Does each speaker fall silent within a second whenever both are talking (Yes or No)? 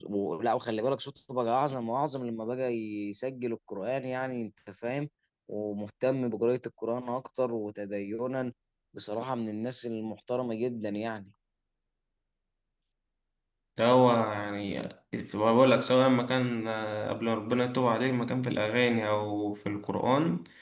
Yes